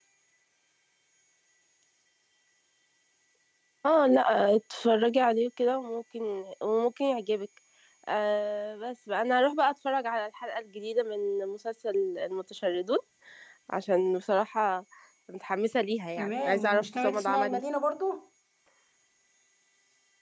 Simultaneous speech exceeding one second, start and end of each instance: 16.2-17.6

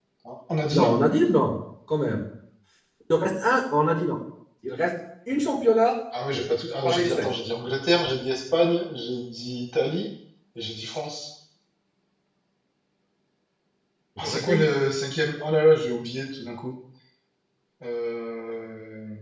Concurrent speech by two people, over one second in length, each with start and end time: none

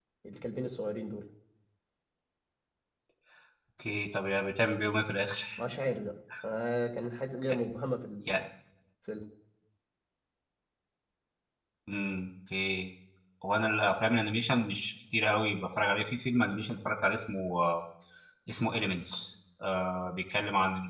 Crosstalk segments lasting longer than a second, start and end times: none

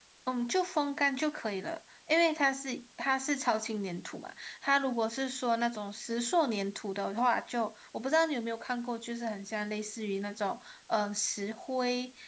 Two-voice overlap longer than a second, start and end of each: none

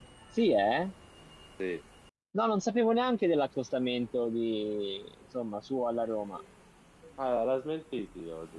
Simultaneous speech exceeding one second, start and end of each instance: none

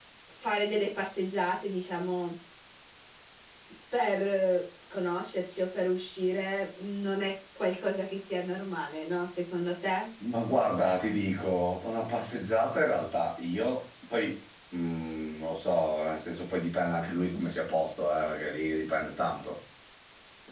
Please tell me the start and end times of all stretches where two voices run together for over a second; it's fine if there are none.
none

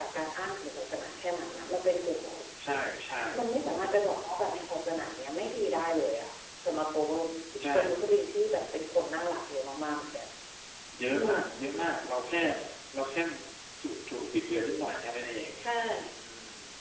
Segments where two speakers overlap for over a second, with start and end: none

